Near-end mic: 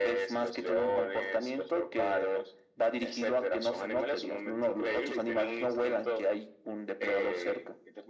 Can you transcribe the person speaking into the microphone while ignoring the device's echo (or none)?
none